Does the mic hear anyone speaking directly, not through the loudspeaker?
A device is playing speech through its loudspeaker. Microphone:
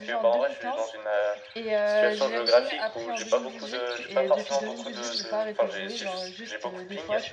Yes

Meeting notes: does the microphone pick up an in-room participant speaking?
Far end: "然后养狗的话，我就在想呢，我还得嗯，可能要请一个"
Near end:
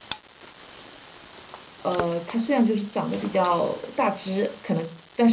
Yes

